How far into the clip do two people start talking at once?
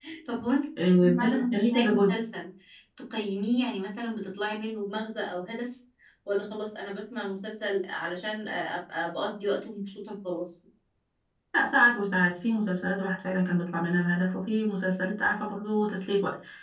0.8 s

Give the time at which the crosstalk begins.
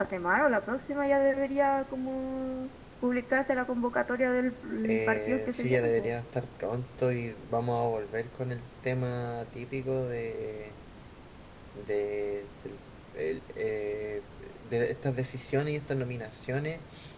4.8 s

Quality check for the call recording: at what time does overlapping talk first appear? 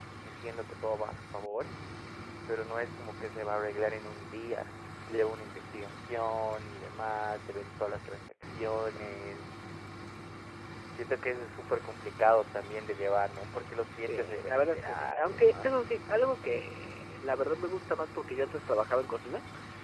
14.1 s

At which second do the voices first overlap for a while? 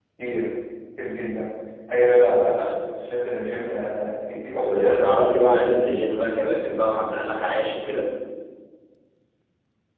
4.6 s

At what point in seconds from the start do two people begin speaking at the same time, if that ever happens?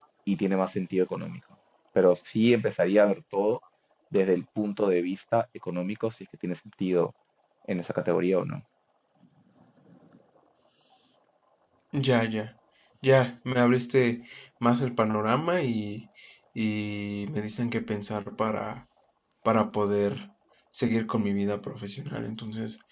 none

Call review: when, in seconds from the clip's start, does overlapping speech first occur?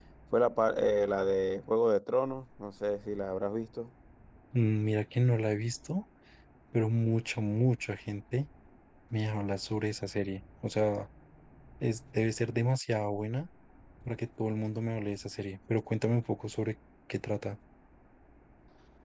none

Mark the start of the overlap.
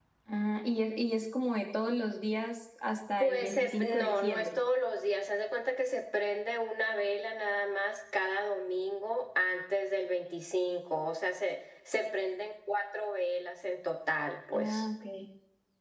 3.2 s

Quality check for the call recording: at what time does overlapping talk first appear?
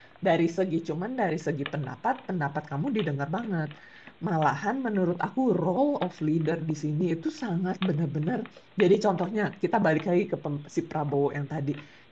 none

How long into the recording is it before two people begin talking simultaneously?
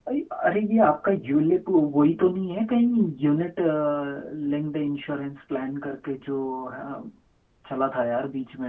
none

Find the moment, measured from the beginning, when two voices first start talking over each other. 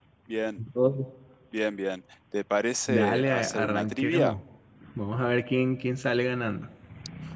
2.9 s

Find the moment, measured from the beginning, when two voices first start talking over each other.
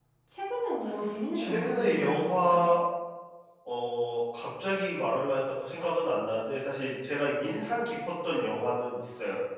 1.4 s

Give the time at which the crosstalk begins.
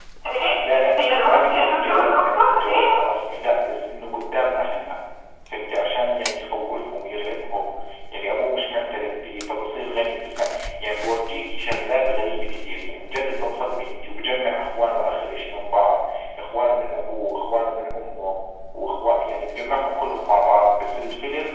0.5 s

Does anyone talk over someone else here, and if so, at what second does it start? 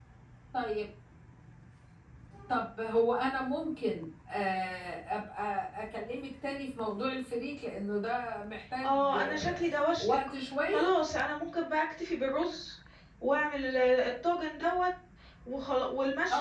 8.8 s

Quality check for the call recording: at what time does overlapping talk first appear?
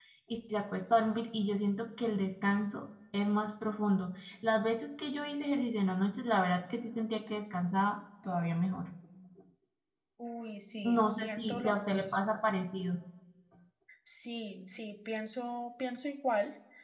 10.8 s

